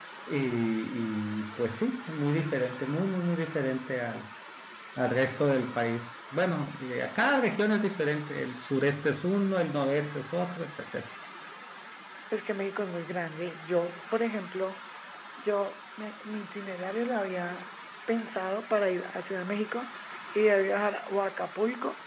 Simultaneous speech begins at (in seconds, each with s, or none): none